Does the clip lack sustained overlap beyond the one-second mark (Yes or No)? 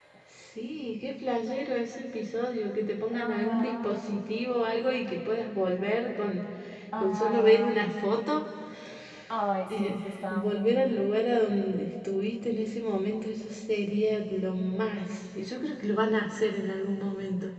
No